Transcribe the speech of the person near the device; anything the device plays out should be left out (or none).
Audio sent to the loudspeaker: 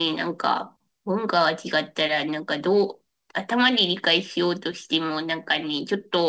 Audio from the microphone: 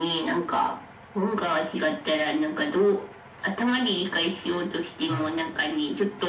はいはい。